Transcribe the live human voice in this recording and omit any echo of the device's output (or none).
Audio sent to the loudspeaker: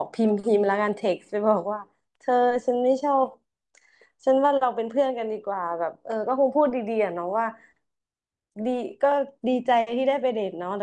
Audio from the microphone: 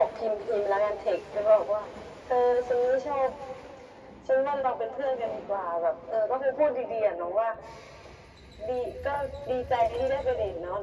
none